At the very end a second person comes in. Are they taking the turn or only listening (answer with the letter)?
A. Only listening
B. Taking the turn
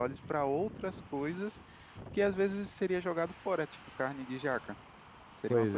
A